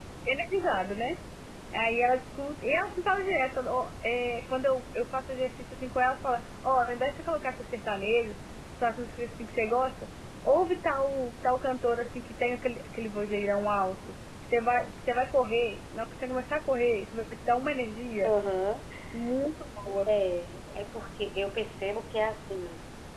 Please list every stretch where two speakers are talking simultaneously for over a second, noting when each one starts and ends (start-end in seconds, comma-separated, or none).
none